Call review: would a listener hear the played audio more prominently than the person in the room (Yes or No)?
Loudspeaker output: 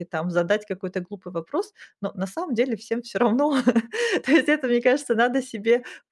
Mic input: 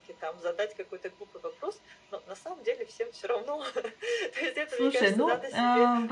No